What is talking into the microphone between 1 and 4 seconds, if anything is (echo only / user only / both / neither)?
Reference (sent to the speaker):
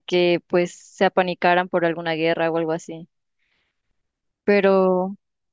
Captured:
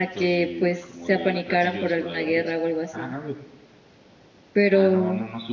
both